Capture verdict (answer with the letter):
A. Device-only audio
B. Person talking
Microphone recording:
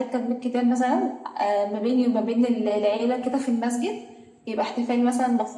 A